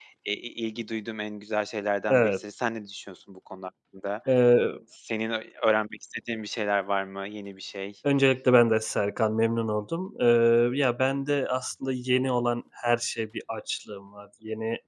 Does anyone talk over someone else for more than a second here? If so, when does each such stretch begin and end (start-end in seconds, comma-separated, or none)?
none